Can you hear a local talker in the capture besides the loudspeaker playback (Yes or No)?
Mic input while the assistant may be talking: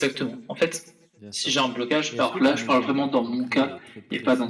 Yes